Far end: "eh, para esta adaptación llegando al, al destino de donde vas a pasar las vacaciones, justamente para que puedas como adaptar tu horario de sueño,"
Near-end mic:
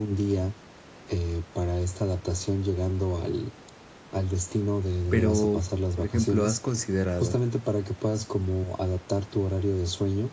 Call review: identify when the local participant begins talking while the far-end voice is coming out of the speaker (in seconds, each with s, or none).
5.1 s